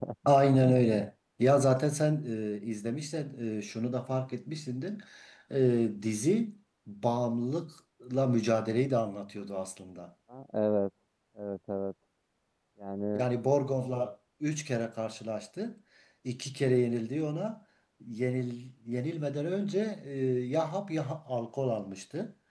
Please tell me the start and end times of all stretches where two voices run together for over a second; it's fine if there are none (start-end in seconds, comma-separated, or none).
none